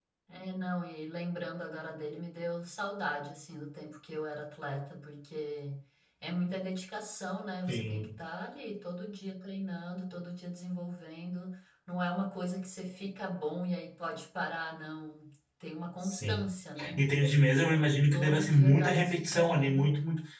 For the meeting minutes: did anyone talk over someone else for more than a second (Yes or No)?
Yes